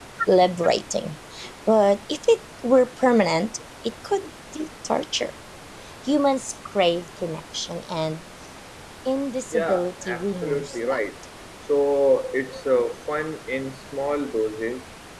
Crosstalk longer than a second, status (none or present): present